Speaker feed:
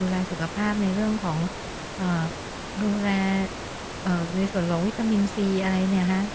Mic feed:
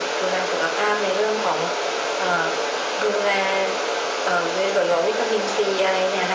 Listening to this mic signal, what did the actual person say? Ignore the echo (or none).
none